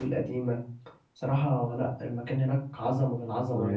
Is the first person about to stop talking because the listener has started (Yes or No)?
Yes